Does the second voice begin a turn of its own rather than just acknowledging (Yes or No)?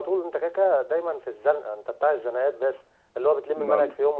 No